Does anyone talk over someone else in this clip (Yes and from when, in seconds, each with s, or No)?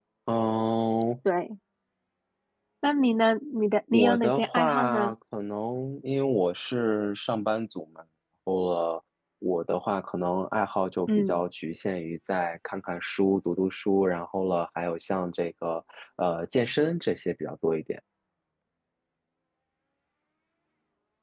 Yes, from 3.9 s